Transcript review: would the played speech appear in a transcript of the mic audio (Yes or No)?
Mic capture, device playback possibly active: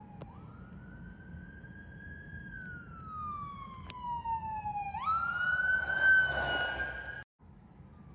No